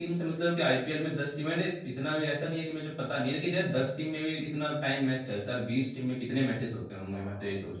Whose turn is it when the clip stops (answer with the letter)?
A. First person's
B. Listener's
B